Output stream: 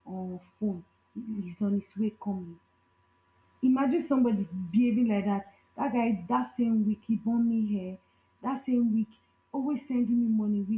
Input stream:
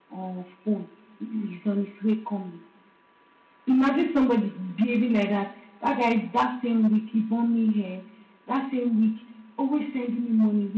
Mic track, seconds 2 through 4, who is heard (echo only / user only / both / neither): echo only